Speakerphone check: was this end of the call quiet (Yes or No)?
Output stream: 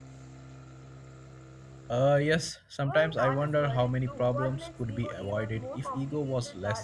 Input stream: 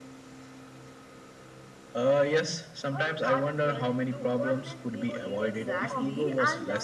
No